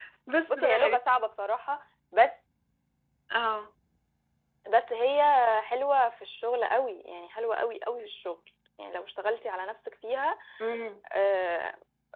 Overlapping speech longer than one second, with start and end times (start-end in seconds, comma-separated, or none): none